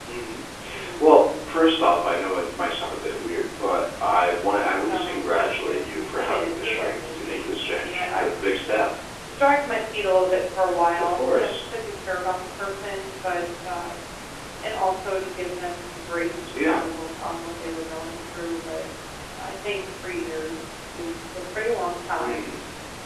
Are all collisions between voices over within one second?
No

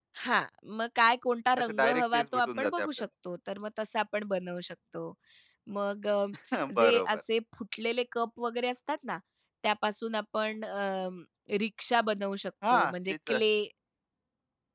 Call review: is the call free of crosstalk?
No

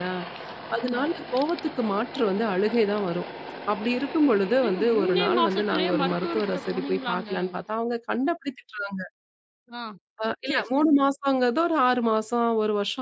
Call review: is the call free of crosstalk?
No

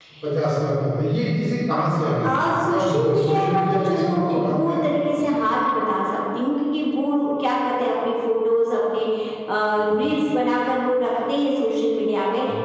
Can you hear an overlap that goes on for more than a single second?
Yes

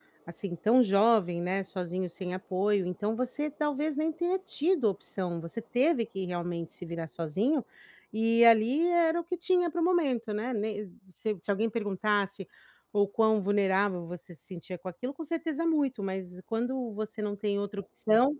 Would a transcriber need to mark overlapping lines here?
No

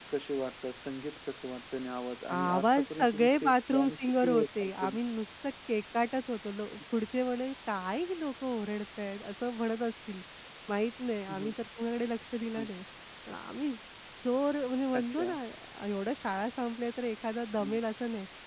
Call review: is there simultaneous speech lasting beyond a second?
Yes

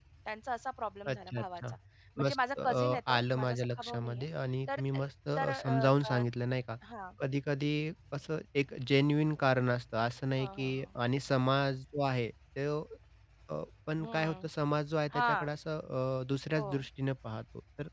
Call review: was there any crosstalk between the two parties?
Yes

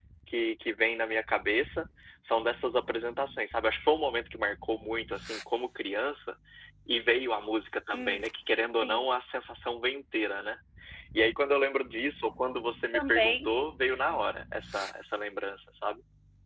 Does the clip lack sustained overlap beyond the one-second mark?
Yes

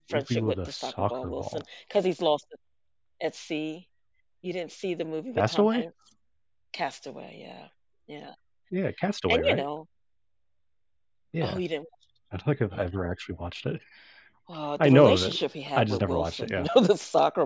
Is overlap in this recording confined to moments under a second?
No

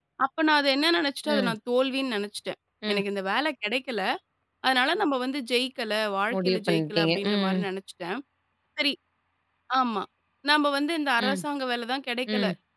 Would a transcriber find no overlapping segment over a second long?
No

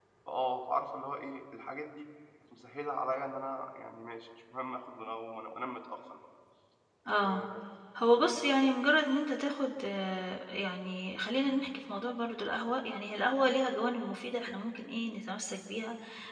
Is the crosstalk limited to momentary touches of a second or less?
Yes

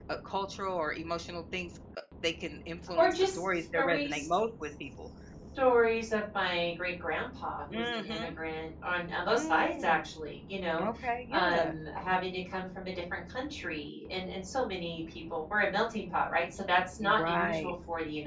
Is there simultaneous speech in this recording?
Yes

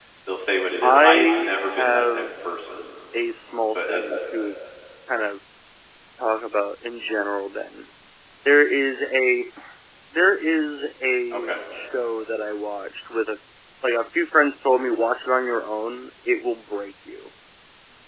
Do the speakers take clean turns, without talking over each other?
No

